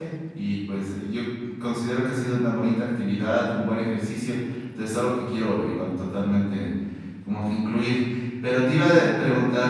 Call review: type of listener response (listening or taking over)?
taking over